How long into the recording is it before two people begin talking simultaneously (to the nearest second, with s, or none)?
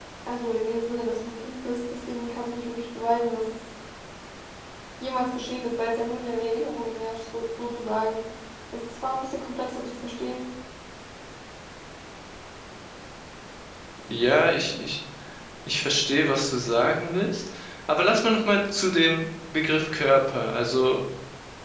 none